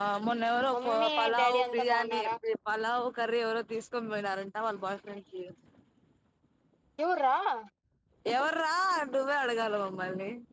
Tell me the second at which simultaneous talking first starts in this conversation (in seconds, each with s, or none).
0.7 s